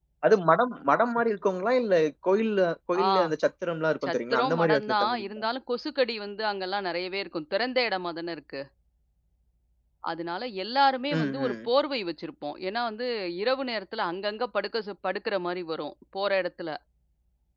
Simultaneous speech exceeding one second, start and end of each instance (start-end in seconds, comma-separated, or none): 4.0-5.2